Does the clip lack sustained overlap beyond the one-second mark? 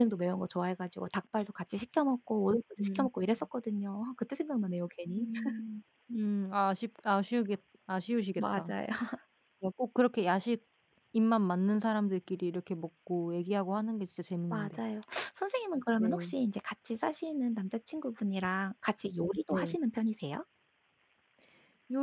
Yes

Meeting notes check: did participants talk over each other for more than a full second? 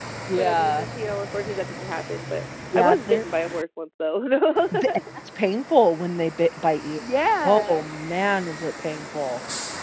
No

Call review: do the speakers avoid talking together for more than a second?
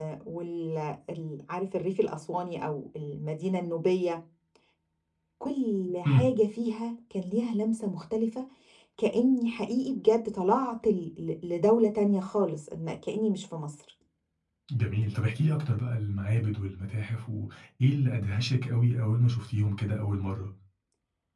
Yes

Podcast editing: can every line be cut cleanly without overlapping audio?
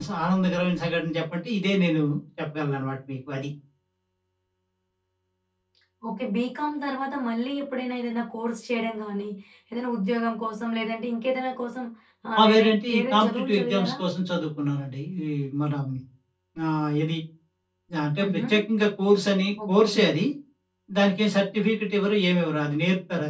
No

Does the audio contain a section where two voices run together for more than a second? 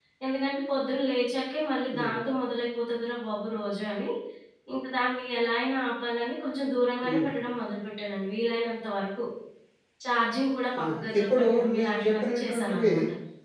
Yes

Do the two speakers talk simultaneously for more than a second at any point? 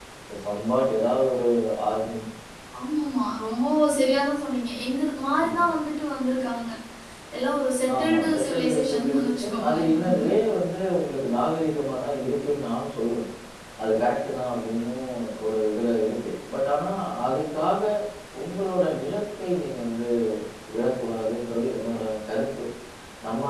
Yes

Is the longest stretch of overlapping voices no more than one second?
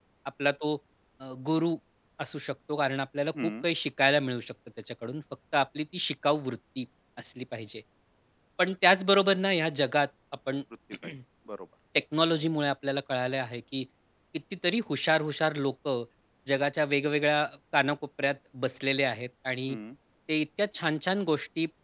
Yes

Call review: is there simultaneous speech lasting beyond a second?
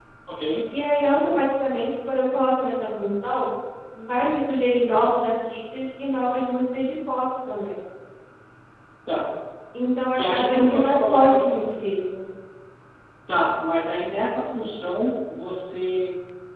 Yes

